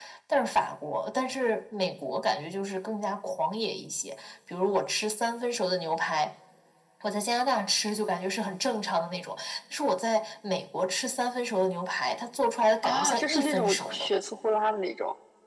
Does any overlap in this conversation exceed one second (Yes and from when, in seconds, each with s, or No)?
Yes, from 12.8 s